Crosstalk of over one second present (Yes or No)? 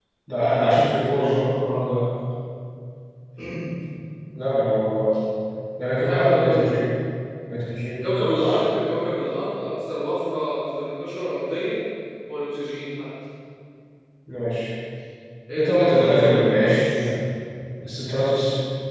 Yes